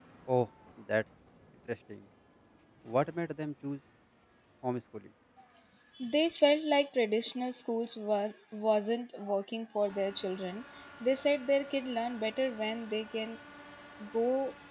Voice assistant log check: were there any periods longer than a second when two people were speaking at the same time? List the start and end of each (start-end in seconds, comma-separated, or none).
none